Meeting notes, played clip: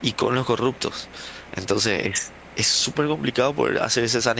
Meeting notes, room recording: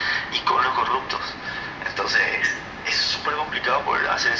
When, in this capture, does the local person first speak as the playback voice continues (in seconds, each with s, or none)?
none